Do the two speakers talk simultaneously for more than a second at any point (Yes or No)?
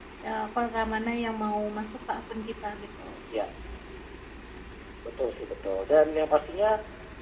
No